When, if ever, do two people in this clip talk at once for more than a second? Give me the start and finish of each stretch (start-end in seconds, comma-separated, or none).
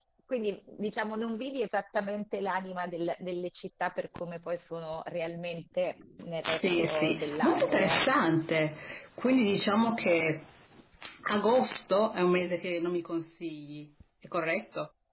6.4-8.0